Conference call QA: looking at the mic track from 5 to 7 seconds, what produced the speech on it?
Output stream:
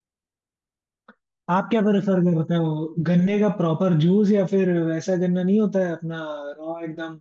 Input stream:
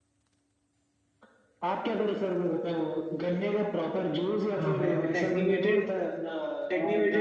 both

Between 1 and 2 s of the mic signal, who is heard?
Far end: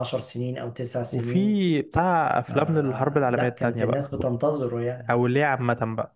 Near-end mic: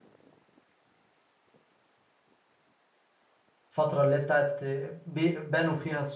neither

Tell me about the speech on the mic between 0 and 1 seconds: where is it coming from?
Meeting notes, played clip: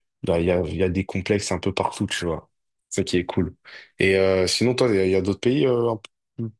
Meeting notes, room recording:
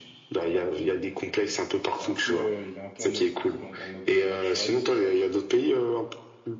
echo only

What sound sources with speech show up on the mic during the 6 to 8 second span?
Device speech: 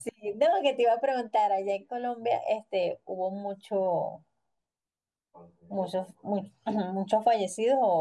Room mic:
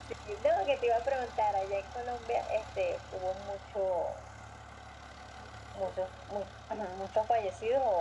echo only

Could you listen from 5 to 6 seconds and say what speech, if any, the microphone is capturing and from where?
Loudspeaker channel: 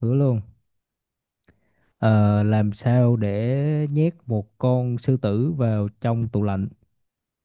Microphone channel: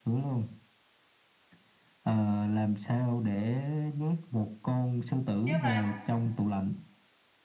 both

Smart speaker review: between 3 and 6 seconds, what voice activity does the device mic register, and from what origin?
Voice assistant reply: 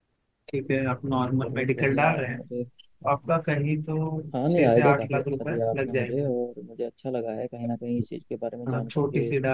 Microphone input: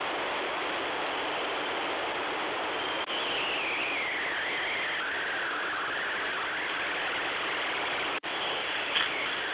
neither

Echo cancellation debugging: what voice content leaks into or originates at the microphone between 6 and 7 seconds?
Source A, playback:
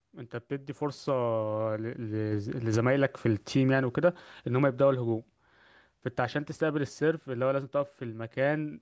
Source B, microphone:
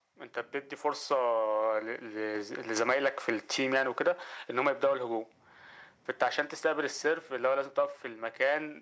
echo only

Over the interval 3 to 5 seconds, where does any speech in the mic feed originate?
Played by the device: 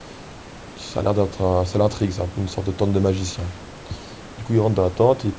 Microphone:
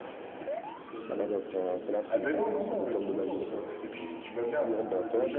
both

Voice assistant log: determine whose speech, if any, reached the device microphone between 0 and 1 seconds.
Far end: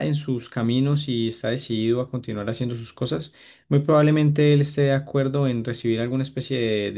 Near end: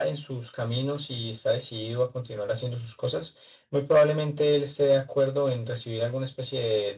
echo only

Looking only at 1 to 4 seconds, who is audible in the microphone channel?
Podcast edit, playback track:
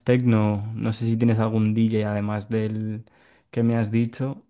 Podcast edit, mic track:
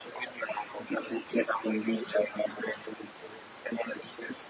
echo only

